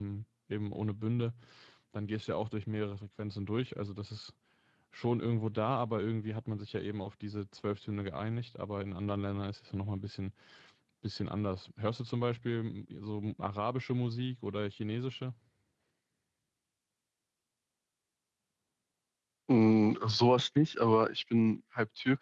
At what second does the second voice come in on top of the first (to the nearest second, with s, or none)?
none